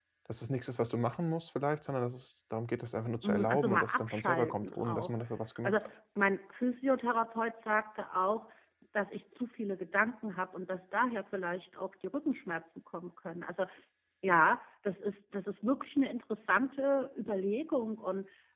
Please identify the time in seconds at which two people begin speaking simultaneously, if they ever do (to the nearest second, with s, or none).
3 s